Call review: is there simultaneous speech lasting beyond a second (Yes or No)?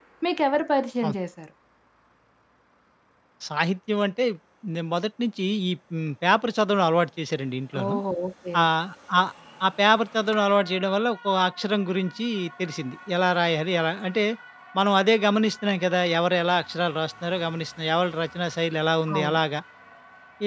No